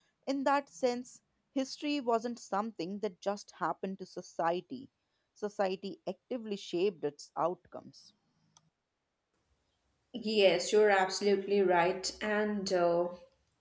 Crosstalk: none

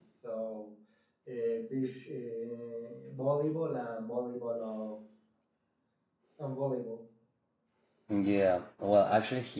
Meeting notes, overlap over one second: none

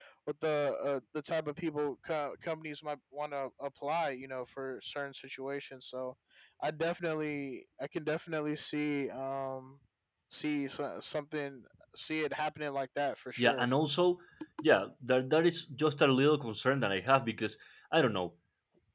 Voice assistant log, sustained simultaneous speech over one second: none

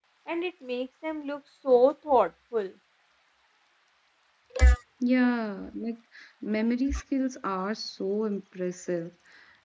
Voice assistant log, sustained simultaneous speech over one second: none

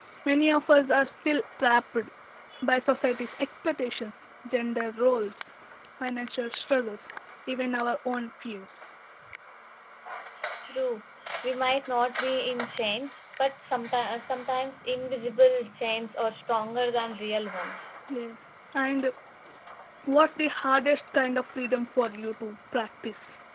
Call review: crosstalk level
none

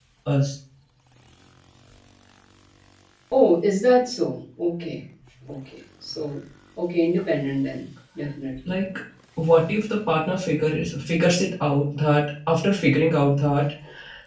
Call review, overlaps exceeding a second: none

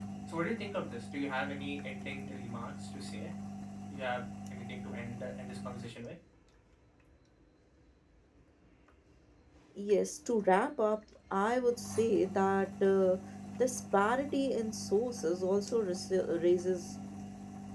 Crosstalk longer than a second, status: none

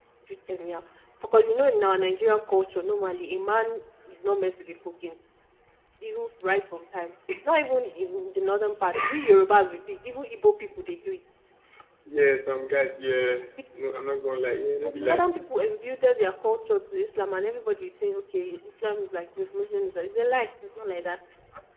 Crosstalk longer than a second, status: none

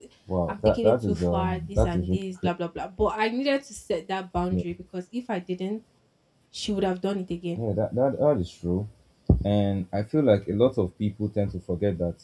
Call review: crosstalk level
present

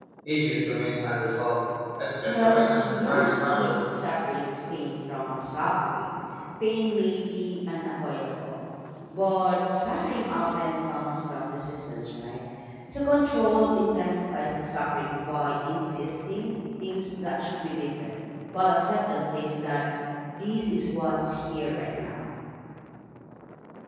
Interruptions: present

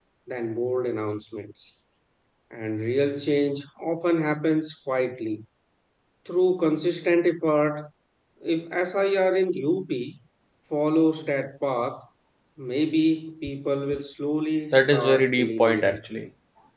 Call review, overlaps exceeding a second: present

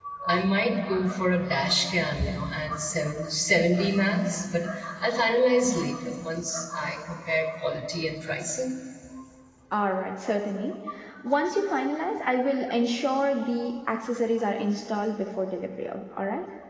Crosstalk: none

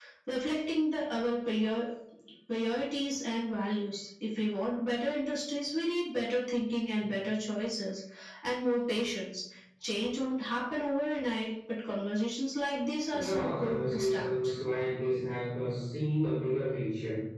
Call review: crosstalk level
present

